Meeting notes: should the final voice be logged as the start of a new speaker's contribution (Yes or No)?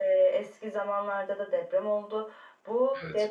No